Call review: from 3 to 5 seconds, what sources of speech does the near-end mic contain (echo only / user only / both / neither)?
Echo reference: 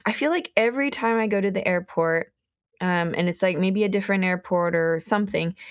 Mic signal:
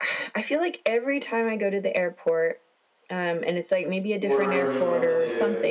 both